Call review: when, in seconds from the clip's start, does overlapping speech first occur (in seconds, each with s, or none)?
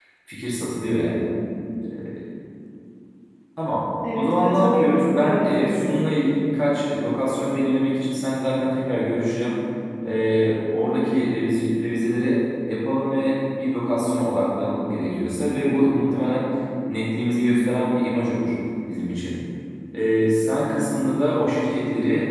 4.2 s